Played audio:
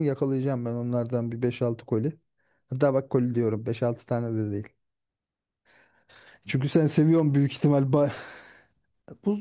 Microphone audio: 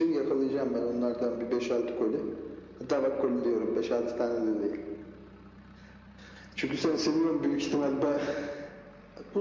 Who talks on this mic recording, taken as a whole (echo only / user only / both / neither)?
echo only